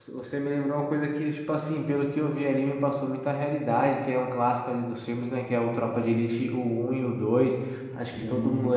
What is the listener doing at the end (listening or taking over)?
listening